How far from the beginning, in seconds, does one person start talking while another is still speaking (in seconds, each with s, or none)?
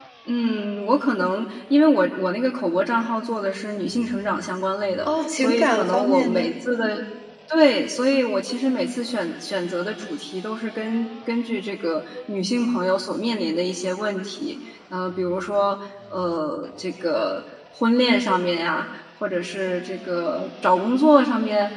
5.1 s